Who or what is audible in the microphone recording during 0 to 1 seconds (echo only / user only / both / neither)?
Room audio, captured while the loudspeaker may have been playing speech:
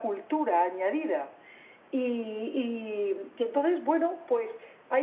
echo only